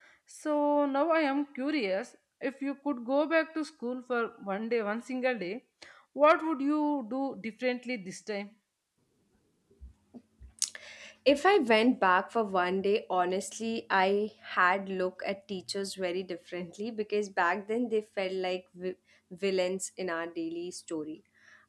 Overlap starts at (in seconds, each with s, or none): none